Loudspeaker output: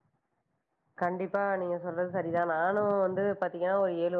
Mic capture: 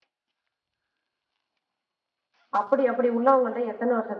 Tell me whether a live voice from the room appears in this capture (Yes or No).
Yes